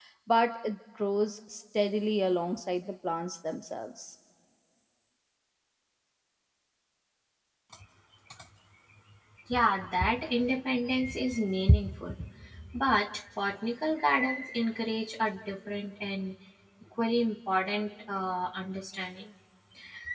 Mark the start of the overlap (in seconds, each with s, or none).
none